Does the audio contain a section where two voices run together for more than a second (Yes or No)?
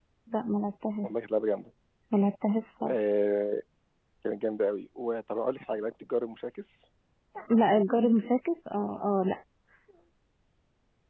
No